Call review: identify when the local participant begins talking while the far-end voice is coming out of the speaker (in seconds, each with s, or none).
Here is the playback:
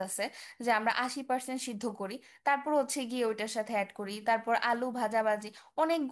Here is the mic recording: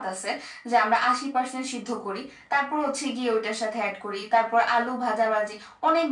none